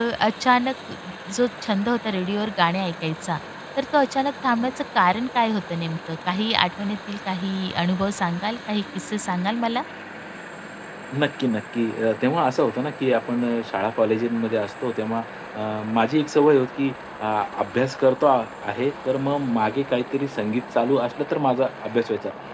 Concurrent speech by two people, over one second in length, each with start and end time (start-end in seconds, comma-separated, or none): none